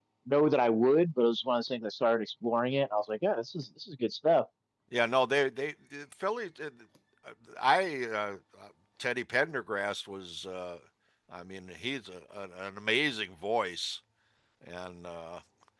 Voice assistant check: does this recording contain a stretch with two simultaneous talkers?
No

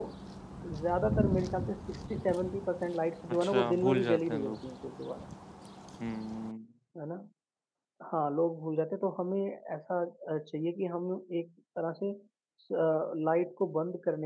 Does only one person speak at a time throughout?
No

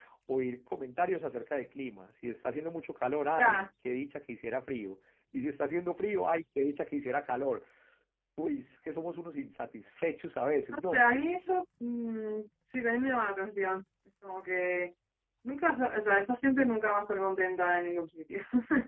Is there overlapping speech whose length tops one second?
No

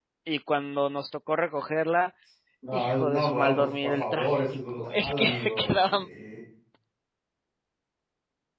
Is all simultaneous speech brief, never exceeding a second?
No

